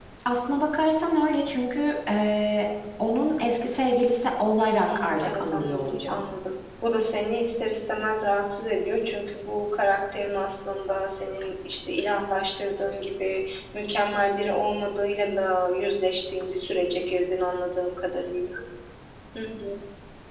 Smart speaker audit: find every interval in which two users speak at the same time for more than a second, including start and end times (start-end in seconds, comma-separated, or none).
4.6-6.2